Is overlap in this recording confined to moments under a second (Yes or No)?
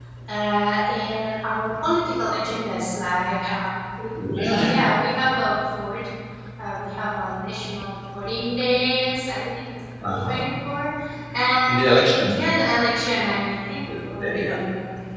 Yes